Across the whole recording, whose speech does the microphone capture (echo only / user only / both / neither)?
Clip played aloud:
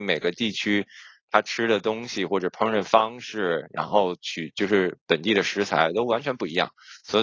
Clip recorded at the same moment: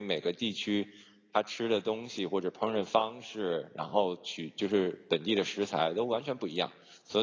echo only